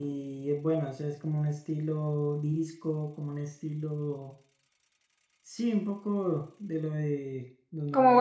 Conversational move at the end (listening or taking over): listening